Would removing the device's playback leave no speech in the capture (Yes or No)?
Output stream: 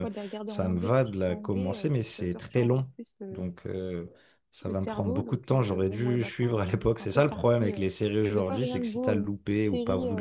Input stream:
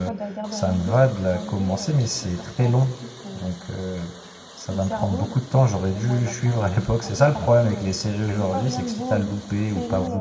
Yes